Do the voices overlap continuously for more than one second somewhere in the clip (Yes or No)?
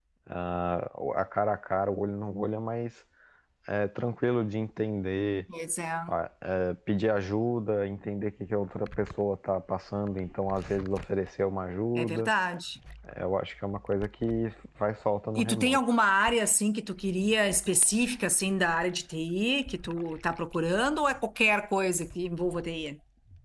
No